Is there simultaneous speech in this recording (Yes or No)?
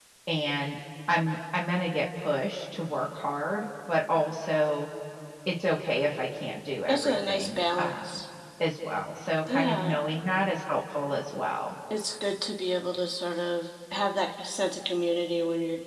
Yes